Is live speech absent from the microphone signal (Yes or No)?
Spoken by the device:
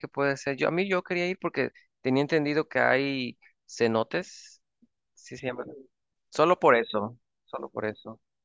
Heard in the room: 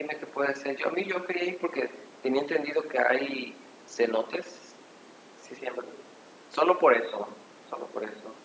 Yes